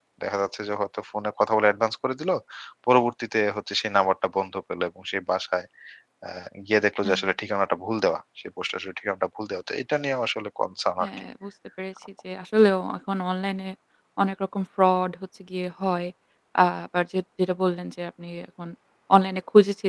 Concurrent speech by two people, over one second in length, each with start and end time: none

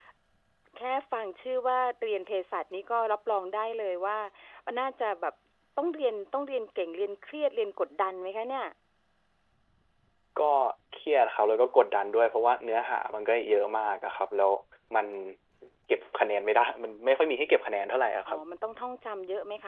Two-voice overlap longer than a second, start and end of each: none

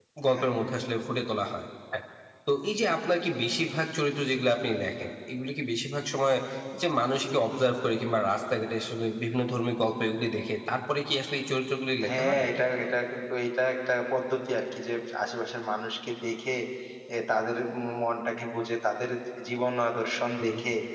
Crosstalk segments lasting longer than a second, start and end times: none

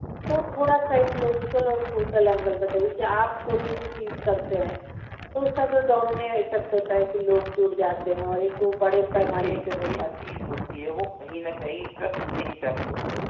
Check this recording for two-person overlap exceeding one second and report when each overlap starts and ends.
9.0-10.3

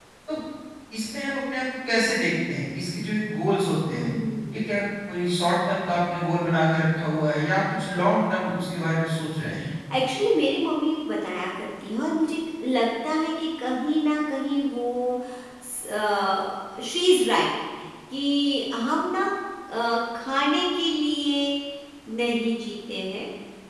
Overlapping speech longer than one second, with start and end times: none

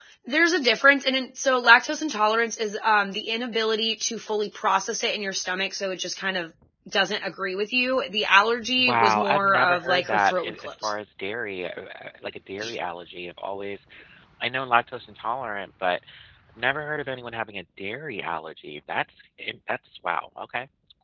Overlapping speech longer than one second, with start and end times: 8.8-10.9

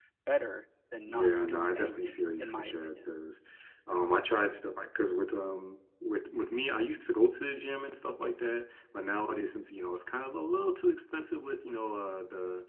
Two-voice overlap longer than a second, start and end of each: 1.1-3.0

